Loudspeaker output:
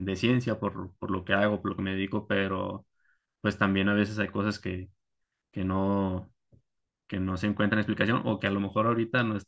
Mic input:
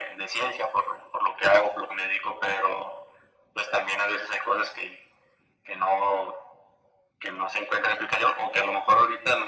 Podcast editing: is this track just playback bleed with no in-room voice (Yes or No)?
Yes